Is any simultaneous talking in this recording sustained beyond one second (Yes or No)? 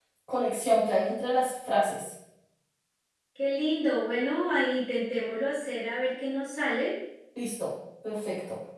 No